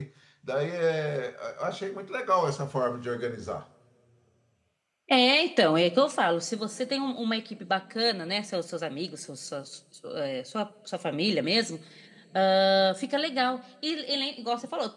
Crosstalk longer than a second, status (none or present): none